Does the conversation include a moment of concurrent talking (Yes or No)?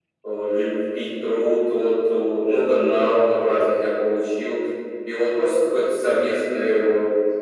No